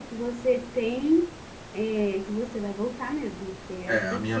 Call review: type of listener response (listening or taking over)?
taking over